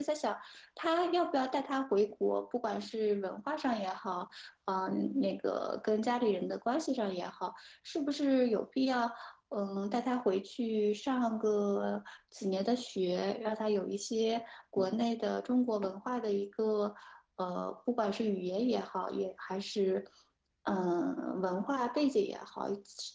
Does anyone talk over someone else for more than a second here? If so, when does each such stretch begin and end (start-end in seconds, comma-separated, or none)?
none